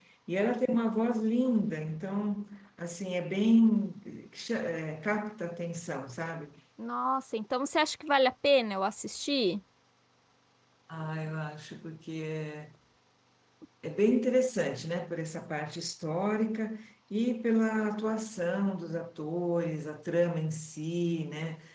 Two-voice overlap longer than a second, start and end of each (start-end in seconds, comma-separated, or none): none